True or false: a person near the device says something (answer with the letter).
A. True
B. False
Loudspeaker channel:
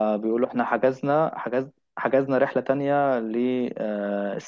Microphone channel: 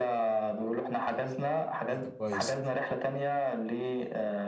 A